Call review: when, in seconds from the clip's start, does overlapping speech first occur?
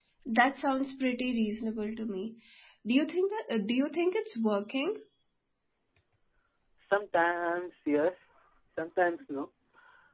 none

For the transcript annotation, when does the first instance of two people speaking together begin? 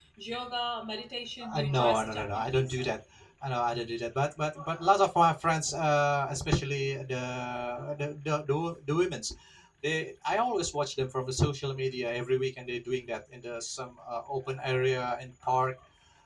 1.4 s

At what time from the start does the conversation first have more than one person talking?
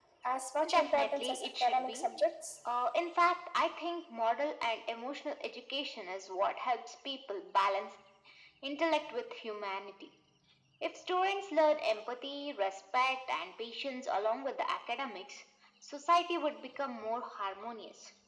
0.7 s

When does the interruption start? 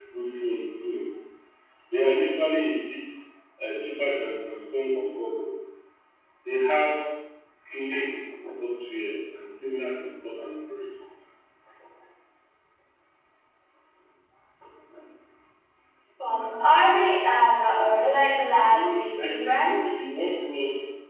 18.7 s

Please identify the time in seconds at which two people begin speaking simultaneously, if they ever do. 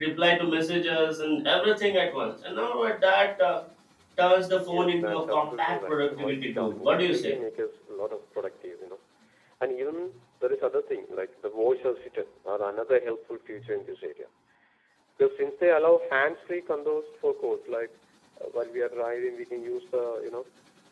4.6 s

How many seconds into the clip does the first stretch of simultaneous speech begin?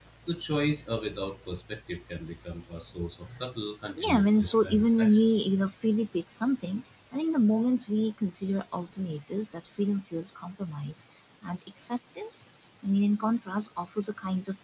4.0 s

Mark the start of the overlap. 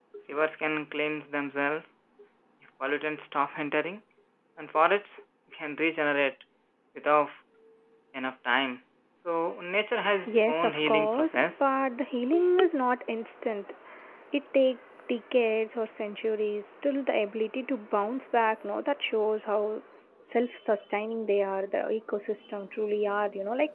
10.2 s

